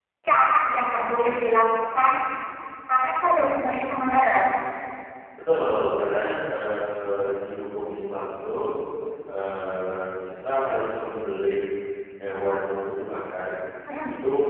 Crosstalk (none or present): none